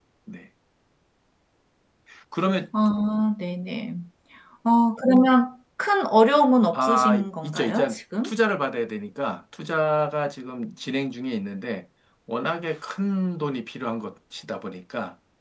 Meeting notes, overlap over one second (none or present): present